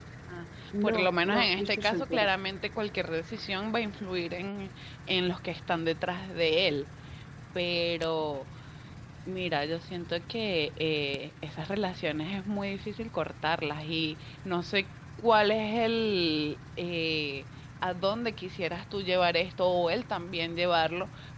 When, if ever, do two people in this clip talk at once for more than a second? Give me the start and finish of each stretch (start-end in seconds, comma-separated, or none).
0.8-2.3